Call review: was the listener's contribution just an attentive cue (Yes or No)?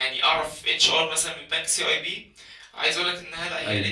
Yes